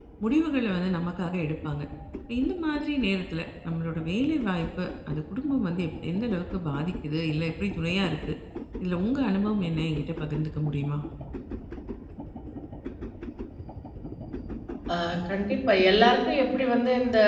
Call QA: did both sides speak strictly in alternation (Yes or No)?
Yes